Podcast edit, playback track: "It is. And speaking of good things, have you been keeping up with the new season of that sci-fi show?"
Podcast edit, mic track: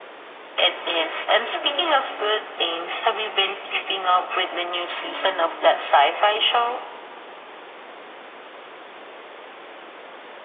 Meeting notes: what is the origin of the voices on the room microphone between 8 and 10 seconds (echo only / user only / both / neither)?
neither